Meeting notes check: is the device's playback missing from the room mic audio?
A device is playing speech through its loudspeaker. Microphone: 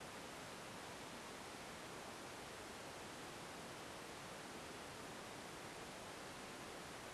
Yes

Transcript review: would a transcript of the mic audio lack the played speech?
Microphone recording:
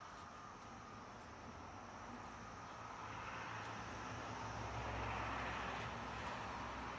Yes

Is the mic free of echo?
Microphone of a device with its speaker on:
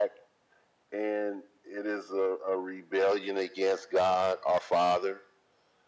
No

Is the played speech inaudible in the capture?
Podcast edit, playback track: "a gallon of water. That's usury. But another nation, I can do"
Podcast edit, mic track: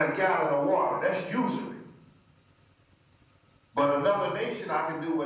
No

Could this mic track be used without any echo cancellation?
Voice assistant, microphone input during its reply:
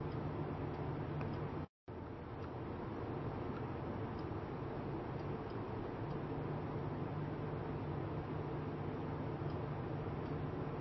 Yes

